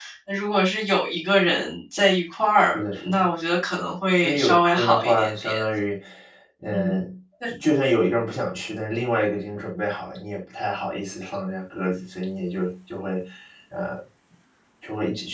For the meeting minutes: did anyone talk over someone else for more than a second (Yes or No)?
Yes